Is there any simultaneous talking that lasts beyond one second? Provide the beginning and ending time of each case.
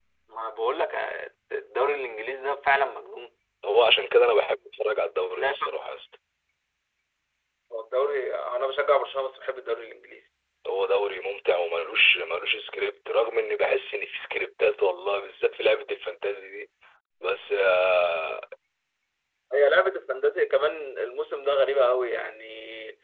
none

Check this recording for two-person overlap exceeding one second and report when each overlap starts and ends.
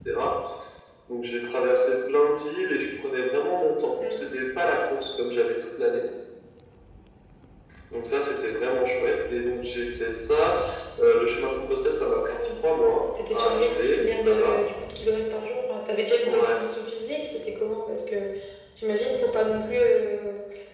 13.3-14.6

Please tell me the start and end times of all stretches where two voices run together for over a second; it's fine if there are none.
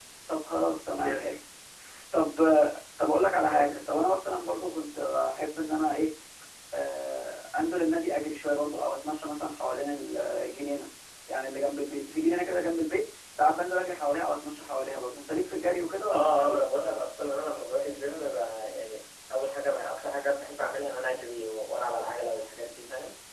none

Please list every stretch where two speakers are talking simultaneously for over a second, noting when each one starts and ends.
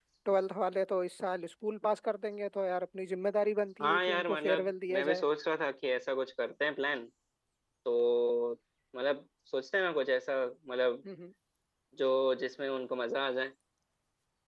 3.8-5.2

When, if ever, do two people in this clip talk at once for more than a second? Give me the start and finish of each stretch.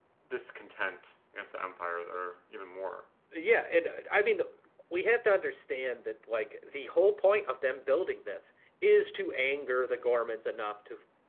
none

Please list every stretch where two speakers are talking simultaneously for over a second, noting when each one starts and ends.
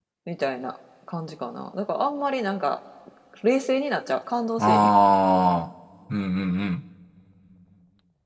none

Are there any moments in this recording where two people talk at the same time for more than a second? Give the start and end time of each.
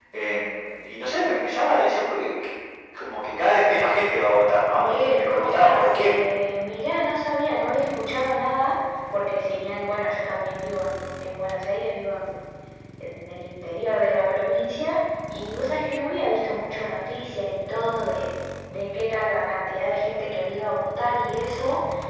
4.7-6.2

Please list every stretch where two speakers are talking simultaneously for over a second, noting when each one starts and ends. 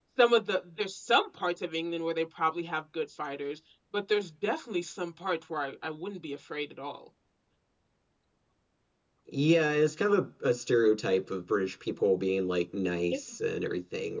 none

